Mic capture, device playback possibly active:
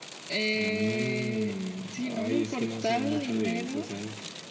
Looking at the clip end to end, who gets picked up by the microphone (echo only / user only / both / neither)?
echo only